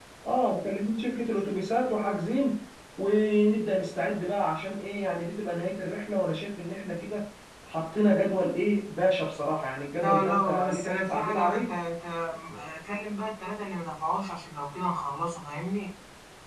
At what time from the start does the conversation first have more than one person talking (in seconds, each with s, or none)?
10.0 s